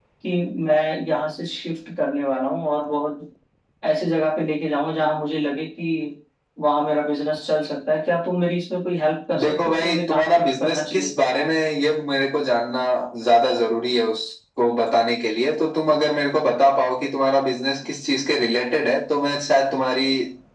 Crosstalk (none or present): present